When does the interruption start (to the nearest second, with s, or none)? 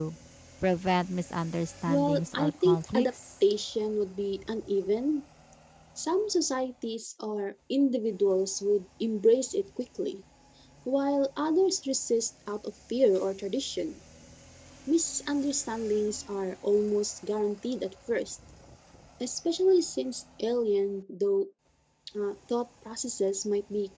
2 s